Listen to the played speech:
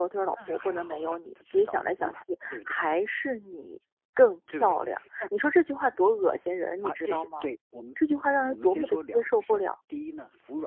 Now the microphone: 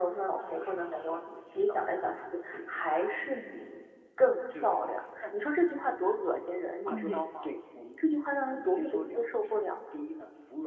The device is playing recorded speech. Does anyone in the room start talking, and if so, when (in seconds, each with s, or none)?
6.9 s